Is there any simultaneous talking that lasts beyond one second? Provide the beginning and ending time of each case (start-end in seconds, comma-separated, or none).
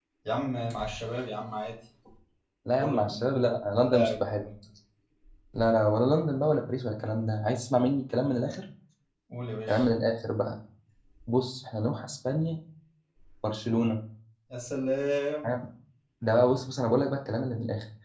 2.8-4.4